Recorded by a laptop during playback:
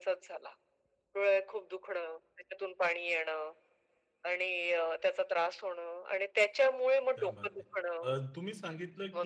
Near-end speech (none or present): present